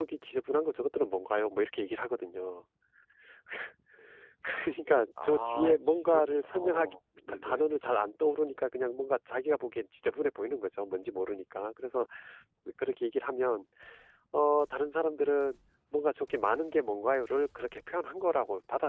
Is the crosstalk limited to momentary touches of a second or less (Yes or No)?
No